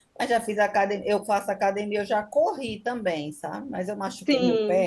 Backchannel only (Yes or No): Yes